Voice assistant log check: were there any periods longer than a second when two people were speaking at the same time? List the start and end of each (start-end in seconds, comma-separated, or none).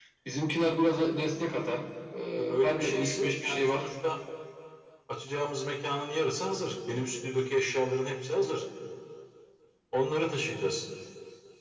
2.4-3.8